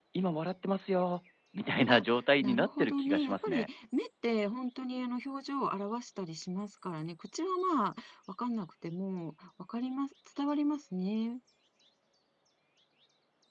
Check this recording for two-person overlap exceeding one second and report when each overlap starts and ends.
2.4-3.7

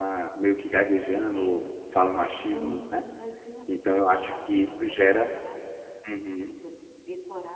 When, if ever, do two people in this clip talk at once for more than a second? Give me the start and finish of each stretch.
3.7-5.3

